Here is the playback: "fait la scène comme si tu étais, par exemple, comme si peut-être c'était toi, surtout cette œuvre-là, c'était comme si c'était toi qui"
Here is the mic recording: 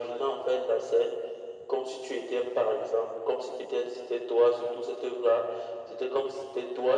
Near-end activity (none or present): none